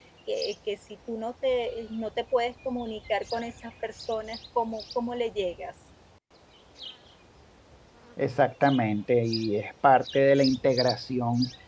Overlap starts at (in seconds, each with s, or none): none